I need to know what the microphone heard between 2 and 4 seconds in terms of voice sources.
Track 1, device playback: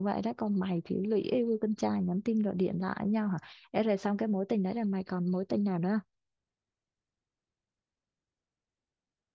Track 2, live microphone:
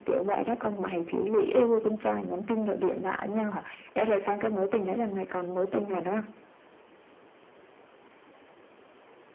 echo only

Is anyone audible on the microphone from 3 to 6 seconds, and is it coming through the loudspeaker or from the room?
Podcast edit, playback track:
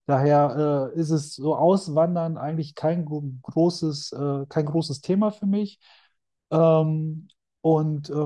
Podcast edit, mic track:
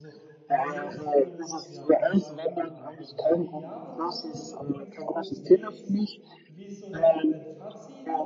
both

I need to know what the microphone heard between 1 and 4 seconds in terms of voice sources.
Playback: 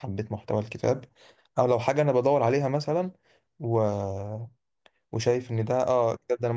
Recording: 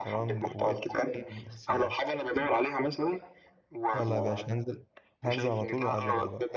both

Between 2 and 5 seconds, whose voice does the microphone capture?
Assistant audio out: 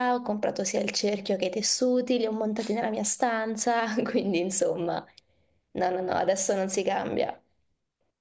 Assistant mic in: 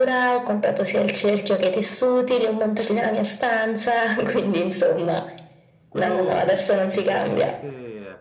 echo only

